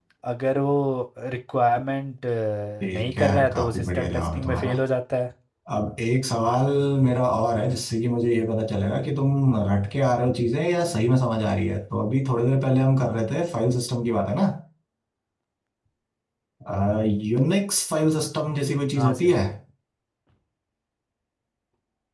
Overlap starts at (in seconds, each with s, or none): 2.9 s